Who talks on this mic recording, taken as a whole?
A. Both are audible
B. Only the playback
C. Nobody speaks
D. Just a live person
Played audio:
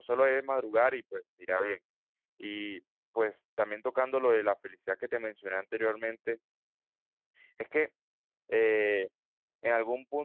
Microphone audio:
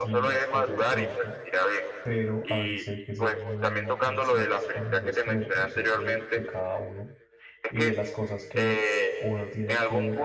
A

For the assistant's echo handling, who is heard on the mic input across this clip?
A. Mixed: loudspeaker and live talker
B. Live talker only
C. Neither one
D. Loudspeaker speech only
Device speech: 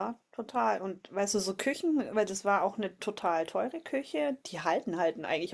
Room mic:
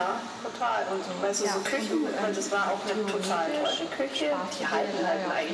A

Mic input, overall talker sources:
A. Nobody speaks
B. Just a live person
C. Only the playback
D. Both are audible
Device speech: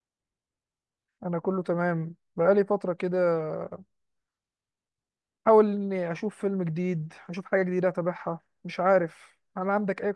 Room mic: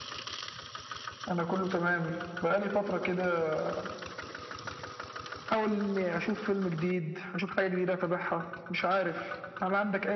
C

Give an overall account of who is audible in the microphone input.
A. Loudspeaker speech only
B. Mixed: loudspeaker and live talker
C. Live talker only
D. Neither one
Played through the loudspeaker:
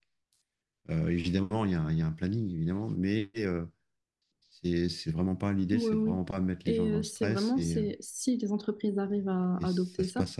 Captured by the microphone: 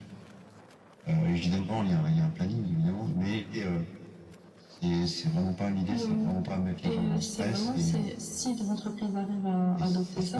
A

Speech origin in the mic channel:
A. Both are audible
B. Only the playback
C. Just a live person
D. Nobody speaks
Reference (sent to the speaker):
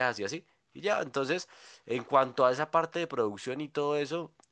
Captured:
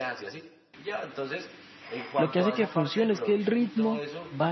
A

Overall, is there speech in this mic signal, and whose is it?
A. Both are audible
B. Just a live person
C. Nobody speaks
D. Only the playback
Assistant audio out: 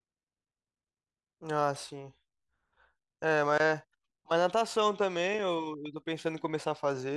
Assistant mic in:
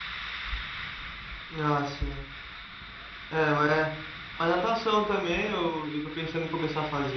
D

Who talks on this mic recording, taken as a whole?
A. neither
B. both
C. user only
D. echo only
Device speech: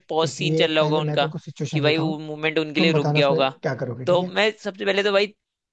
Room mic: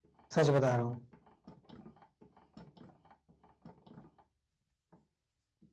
C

